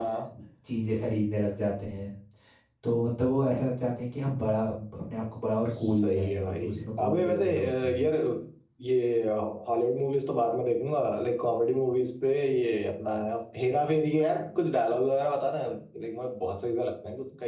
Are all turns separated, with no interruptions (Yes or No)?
No